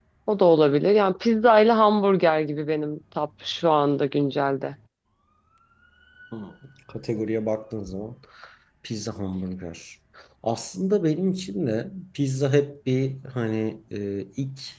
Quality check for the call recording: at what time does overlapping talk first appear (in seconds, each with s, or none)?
none